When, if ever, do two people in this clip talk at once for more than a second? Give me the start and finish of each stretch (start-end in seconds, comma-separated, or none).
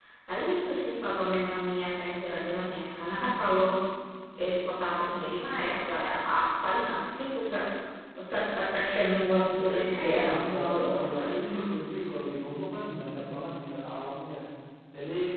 10.0-11.4